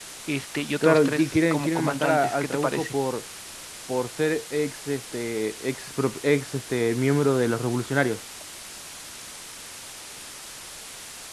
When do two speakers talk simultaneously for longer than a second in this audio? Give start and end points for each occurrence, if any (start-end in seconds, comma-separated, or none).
0.8-3.0